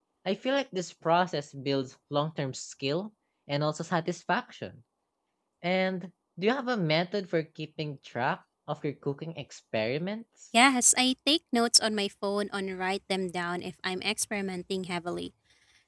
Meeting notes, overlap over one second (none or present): none